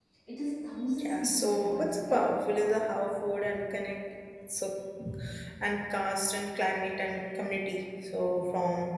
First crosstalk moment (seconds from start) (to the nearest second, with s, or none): 1 s